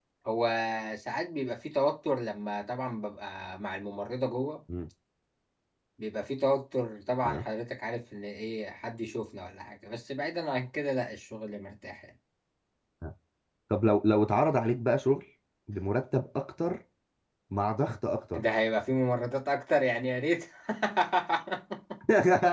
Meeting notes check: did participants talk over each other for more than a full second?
No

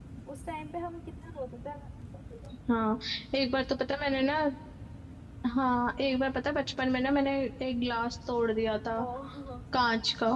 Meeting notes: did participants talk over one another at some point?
No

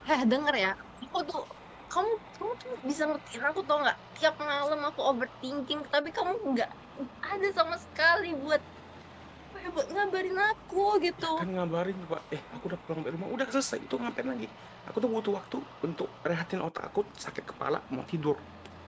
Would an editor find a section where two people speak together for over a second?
No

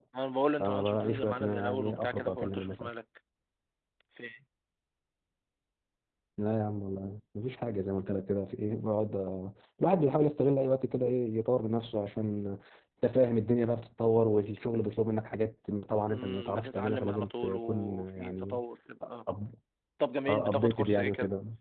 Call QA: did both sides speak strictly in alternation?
No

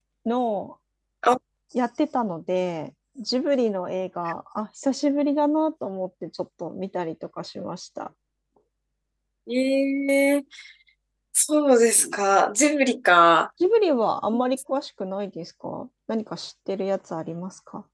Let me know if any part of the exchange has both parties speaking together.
No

